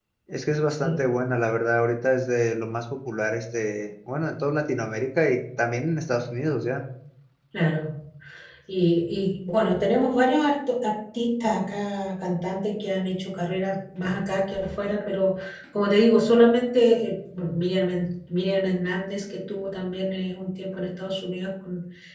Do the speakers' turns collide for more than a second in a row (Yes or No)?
No